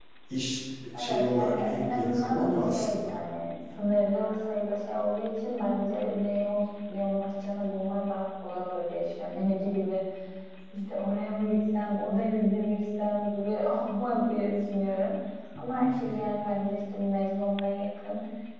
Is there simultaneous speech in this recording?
Yes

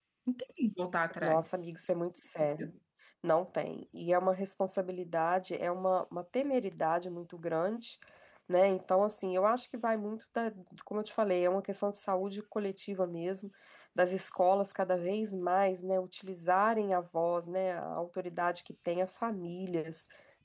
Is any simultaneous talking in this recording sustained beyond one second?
No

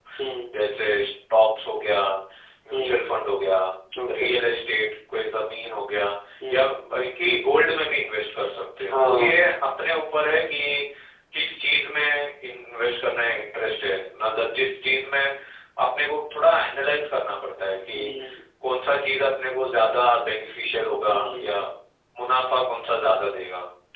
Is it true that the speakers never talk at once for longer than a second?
Yes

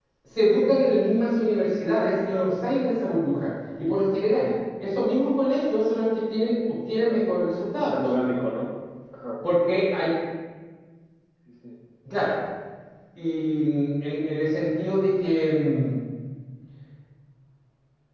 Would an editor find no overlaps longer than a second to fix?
Yes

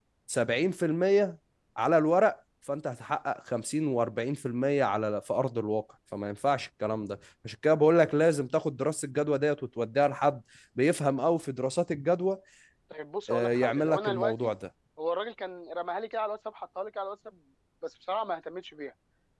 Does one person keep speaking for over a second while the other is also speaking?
Yes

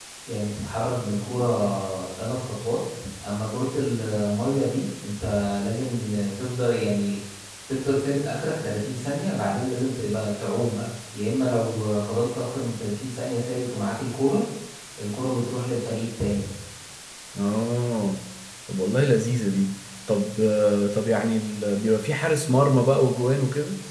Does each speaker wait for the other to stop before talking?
Yes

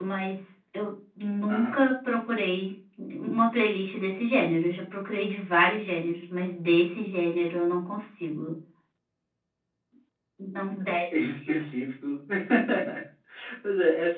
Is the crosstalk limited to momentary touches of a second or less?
Yes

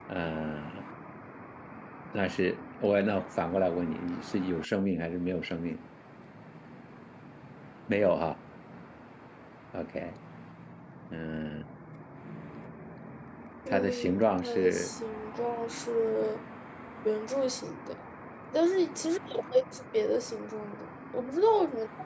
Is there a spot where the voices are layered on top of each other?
Yes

